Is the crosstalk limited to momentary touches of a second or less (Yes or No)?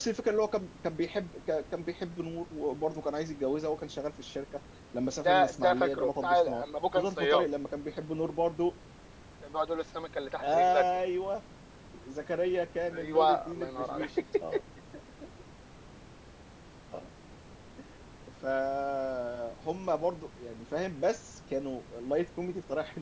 No